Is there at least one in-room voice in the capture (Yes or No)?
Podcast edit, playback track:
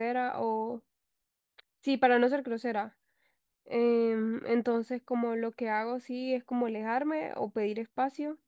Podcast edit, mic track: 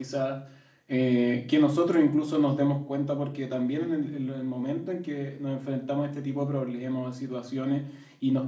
Yes